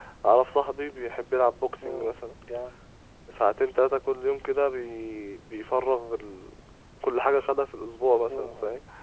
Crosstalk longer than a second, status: none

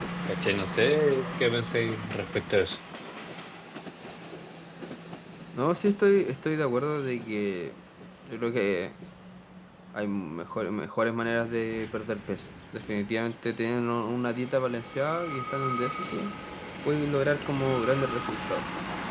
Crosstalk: none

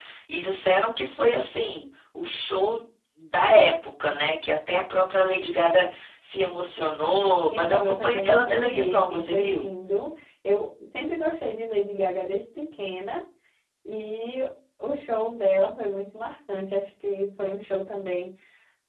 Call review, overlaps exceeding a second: present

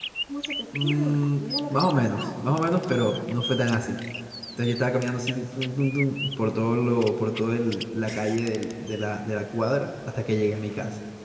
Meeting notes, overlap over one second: present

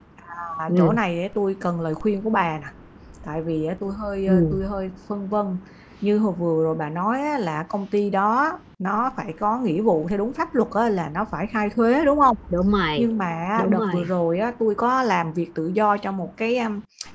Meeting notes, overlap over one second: none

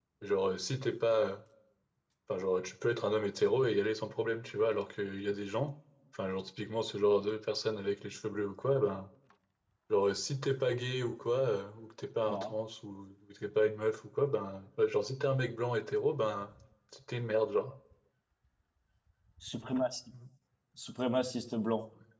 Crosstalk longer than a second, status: none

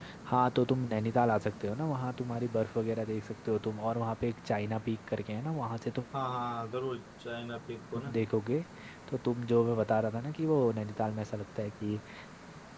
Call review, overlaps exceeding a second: none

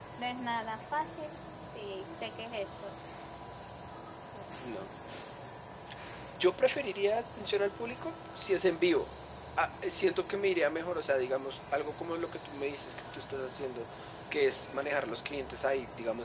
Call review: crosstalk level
none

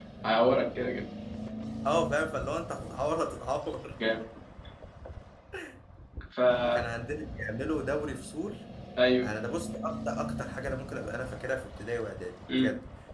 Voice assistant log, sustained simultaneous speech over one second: none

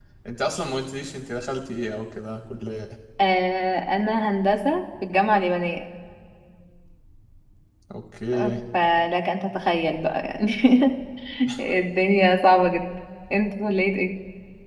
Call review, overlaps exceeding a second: none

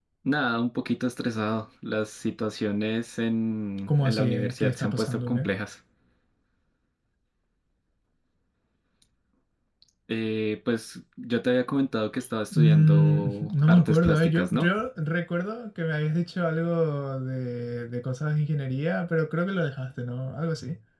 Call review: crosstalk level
present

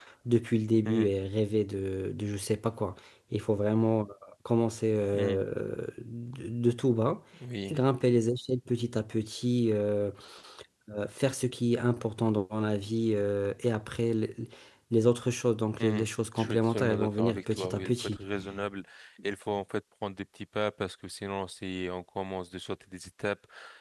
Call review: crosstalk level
present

